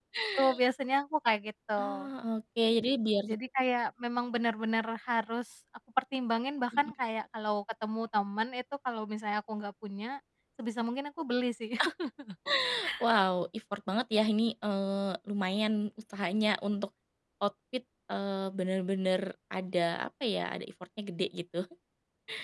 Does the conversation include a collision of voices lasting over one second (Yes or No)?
No